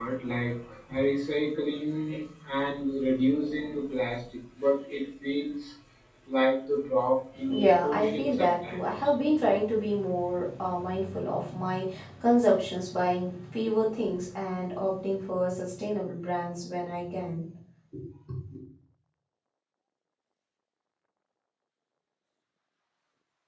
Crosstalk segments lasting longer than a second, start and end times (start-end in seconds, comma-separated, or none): 7.5-8.8